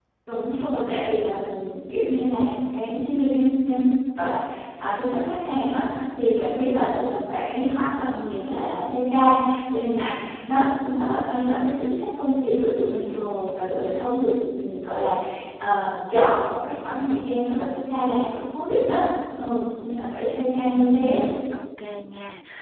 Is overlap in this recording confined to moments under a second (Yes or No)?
Yes